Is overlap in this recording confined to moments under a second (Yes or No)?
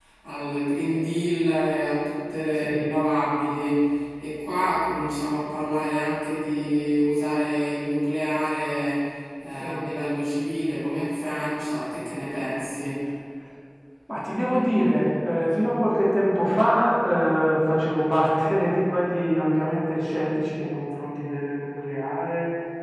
Yes